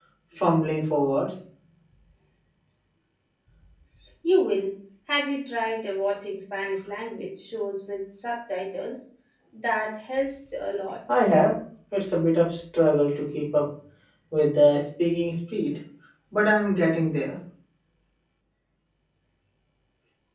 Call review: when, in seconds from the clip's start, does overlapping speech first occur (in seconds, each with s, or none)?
none